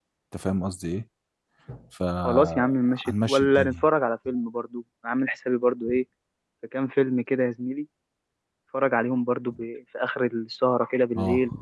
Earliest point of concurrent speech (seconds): 2.2 s

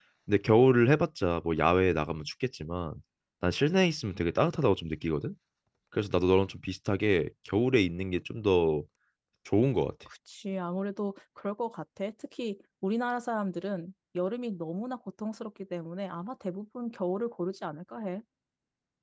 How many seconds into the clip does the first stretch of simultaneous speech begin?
none

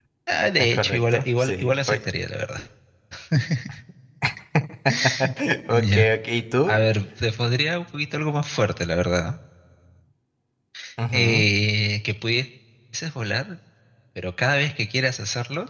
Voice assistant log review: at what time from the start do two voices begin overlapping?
0.6 s

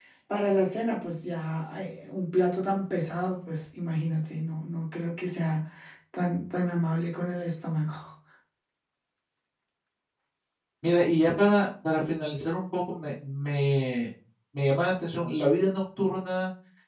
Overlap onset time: none

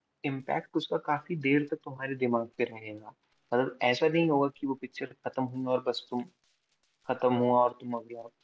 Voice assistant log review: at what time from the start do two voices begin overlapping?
none

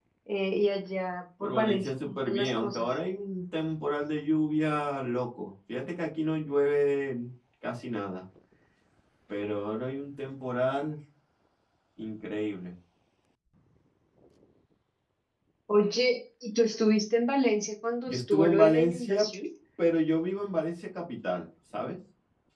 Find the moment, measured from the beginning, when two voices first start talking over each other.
1.4 s

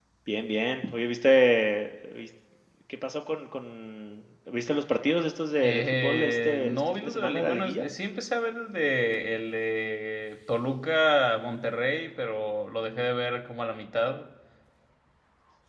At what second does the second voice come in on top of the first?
5.6 s

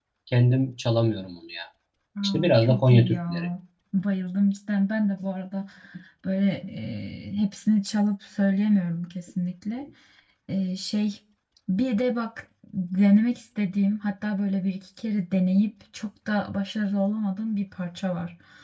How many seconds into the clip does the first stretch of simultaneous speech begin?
2.2 s

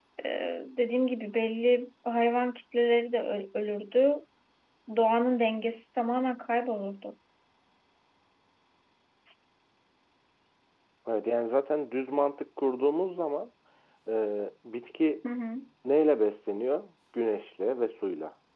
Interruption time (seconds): none

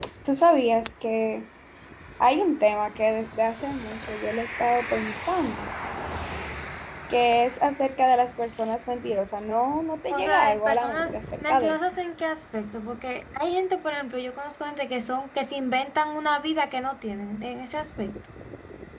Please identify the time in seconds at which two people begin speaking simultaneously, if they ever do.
10.1 s

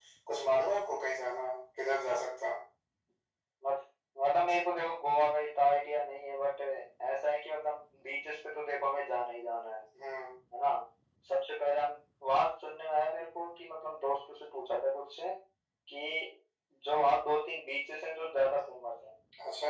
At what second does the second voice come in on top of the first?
none

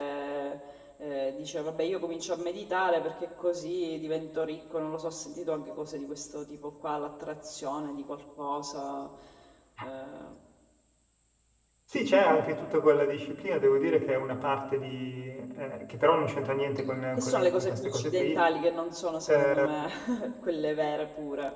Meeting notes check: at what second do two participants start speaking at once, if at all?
17.2 s

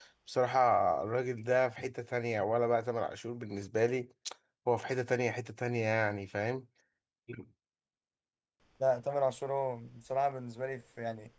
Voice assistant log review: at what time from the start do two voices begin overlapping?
none

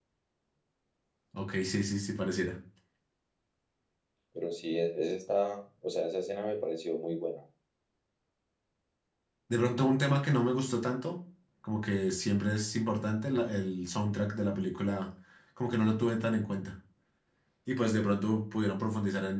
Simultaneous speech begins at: none

